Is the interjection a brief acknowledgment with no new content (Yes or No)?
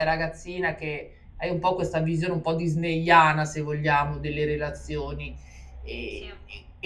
Yes